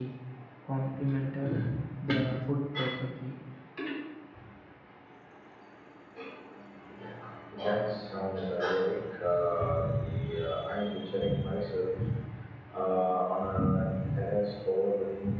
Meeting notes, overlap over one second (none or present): none